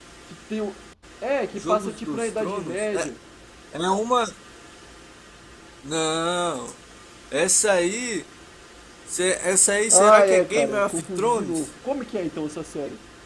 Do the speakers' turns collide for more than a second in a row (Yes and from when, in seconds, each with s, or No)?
Yes, from 1.6 s